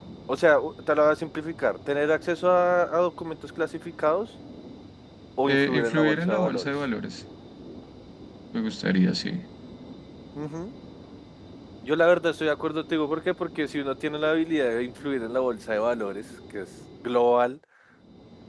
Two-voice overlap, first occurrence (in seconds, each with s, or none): 5.4 s